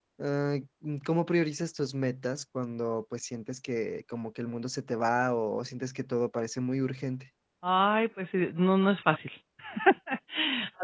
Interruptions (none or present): none